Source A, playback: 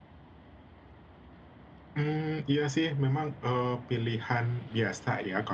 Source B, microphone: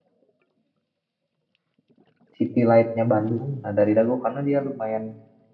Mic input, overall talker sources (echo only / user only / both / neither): user only